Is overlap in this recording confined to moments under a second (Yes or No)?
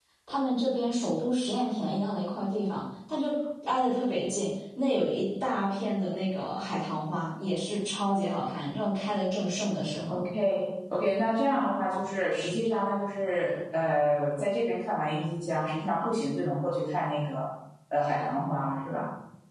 Yes